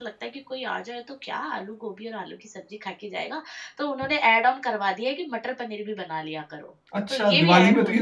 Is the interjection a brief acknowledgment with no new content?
No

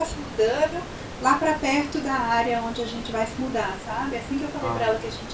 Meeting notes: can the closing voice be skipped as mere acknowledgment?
Yes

